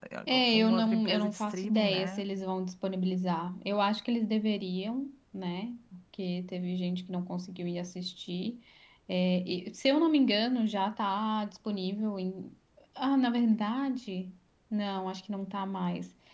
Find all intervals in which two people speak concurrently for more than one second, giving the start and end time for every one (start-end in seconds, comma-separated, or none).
0.5-2.2